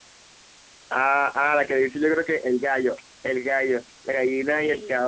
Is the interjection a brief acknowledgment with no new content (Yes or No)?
Yes